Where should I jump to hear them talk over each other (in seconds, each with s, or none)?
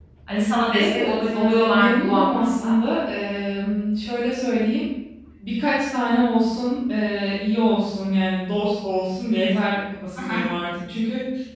0.8 s